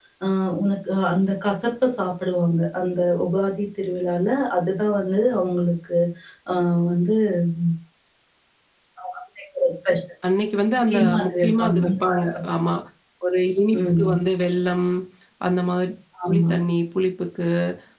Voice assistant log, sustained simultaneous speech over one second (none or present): present